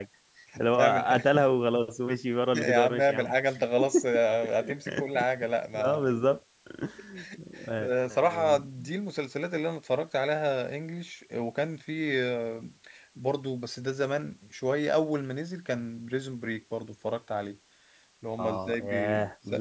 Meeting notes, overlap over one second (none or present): present